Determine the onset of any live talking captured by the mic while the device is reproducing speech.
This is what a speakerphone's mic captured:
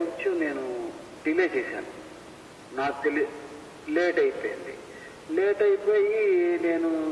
none

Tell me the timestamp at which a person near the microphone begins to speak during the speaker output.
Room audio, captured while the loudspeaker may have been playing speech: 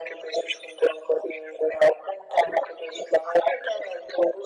none

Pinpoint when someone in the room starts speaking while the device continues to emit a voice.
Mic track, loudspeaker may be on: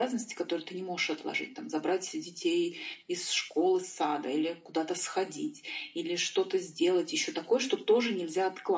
none

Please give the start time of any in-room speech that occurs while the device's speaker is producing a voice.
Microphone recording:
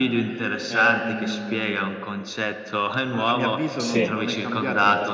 3.8 s

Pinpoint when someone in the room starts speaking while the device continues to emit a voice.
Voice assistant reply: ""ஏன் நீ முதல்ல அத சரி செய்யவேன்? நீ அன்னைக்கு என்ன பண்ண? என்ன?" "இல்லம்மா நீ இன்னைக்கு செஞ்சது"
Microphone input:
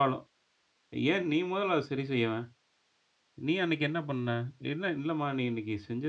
none

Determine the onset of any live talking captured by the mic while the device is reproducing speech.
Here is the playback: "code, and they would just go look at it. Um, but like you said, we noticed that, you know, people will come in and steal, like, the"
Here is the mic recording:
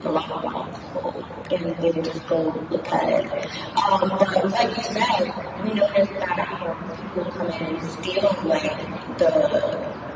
none

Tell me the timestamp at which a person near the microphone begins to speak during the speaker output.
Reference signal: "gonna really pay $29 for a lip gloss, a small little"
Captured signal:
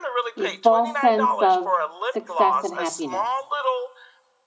0.3 s

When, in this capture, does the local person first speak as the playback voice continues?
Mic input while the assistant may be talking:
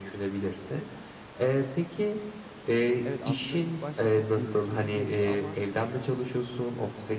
3.0 s

